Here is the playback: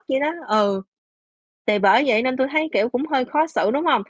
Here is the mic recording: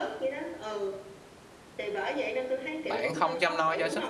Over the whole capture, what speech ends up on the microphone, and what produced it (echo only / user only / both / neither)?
both